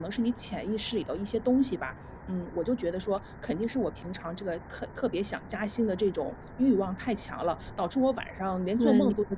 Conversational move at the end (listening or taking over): listening